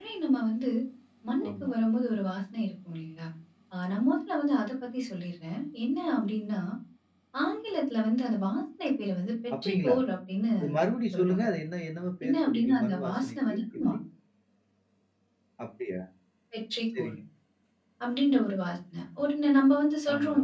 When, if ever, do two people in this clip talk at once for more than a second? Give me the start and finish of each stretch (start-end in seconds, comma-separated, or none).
12.3-13.9